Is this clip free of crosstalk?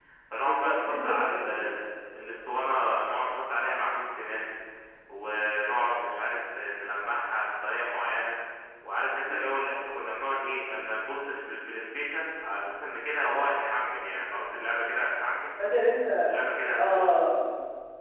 No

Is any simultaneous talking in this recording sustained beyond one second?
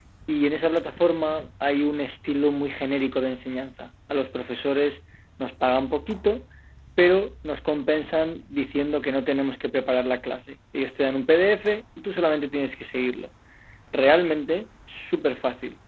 No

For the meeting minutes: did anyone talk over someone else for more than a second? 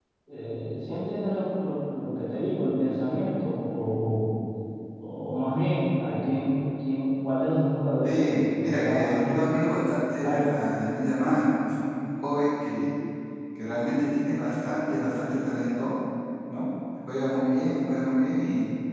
Yes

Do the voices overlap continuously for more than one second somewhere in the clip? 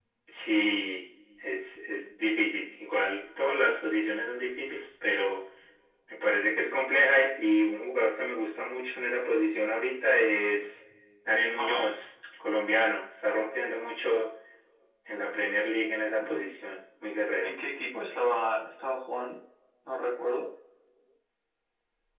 No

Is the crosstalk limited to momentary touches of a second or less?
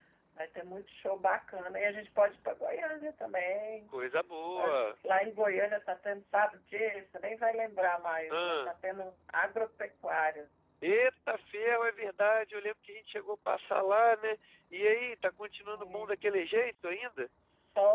No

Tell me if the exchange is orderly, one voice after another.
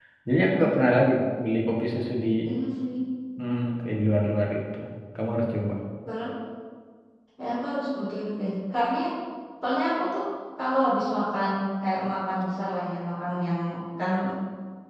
Yes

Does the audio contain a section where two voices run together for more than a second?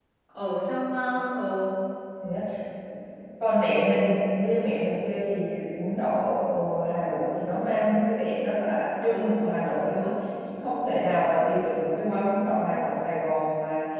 No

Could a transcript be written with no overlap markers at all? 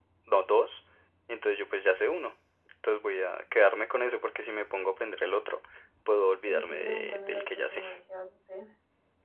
No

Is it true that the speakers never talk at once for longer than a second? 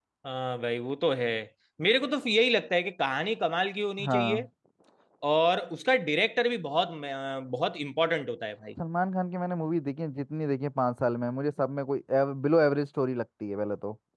Yes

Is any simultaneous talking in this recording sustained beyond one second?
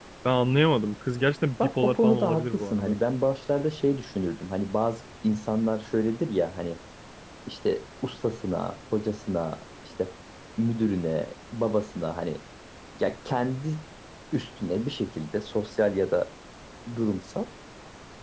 Yes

